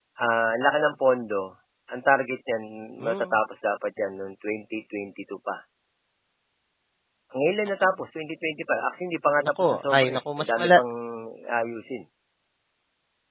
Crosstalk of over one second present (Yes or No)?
Yes